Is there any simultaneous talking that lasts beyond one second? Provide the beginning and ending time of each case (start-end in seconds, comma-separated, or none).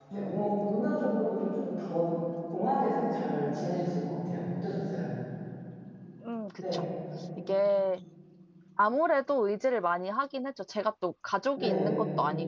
none